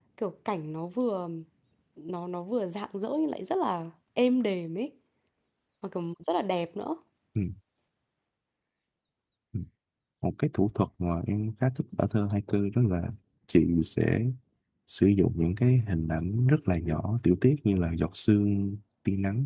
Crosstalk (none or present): none